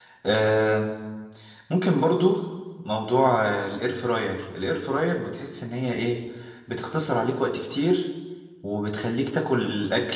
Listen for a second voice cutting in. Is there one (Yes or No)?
No